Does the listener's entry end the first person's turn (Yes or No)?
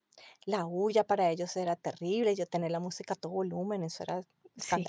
Yes